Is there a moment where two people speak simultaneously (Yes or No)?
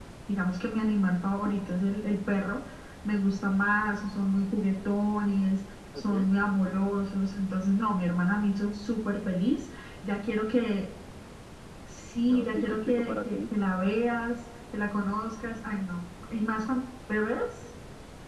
Yes